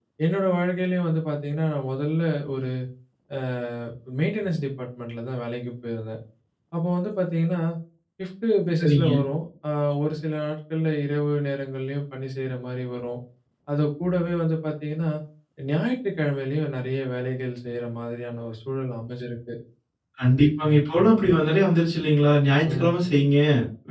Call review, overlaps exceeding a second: none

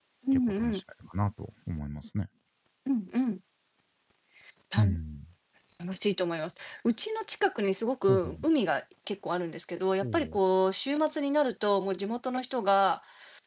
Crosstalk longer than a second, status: none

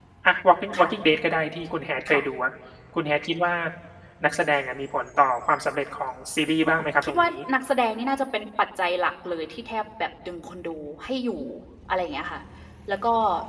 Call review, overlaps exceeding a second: none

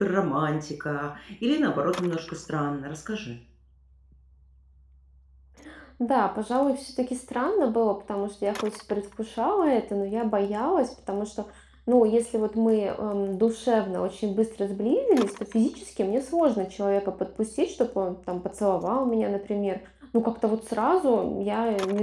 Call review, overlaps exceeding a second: none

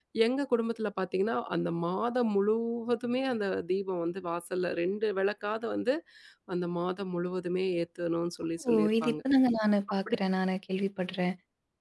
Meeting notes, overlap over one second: none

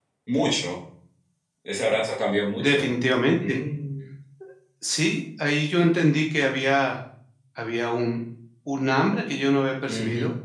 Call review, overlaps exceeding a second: none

